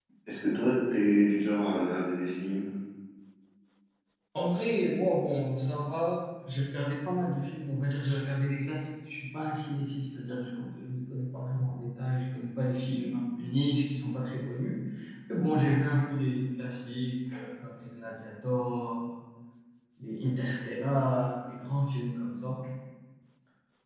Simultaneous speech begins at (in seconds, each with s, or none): none